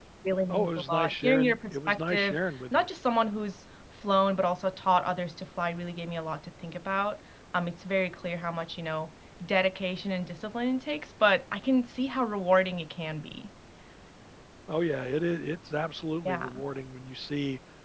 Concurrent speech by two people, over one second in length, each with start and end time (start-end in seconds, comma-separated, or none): 0.5-2.9